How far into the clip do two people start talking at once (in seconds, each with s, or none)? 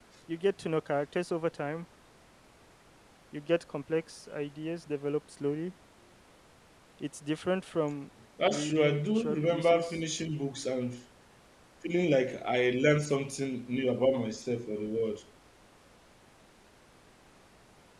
8.5 s